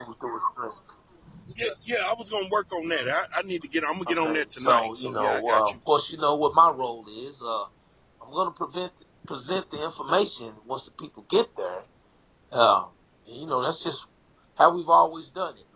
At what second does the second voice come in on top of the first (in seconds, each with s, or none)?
4.1 s